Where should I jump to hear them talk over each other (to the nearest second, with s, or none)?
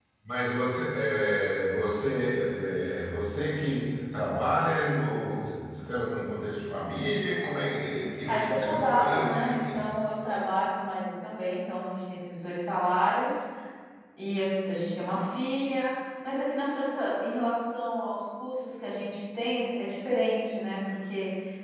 8 s